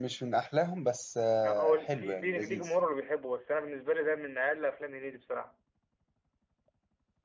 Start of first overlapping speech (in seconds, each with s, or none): 1.4 s